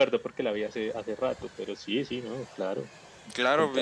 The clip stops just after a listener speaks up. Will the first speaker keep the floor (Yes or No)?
No